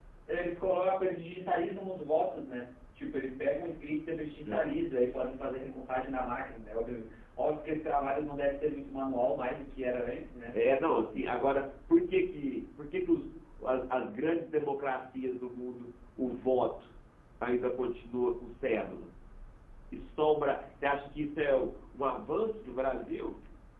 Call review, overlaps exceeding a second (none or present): none